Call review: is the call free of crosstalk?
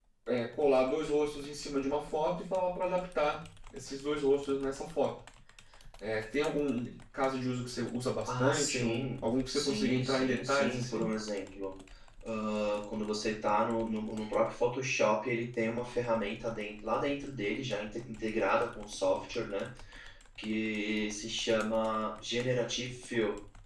No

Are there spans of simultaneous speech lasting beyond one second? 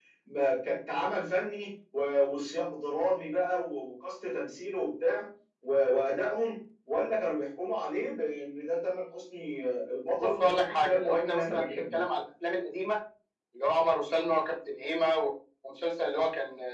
Yes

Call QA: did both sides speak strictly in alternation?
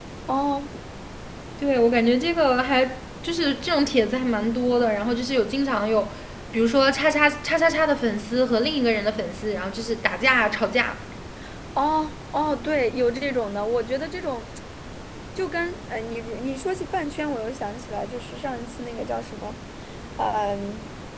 Yes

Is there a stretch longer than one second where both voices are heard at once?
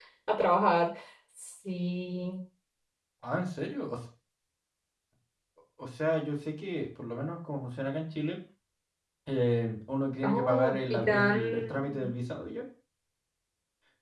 Yes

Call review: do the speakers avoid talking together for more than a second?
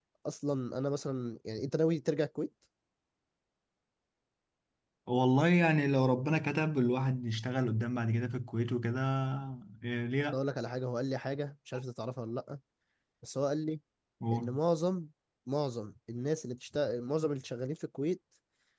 Yes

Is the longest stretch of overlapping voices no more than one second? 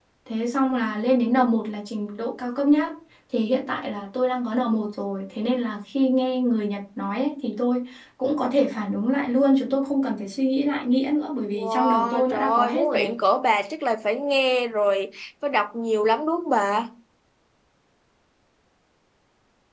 No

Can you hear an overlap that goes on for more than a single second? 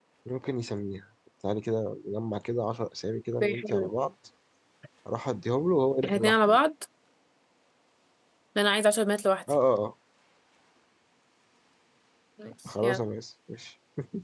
No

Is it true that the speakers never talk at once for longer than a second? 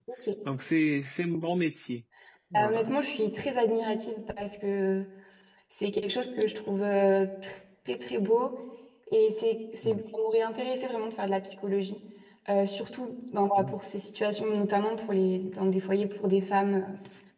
Yes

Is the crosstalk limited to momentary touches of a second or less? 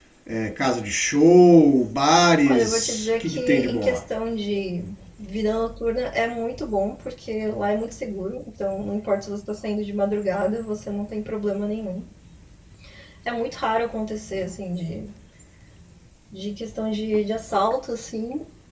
No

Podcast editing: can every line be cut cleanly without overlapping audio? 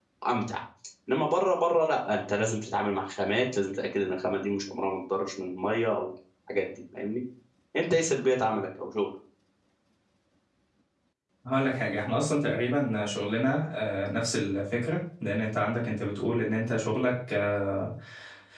Yes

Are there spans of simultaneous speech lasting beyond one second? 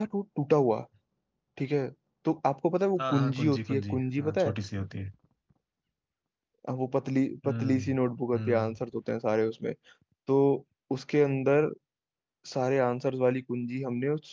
Yes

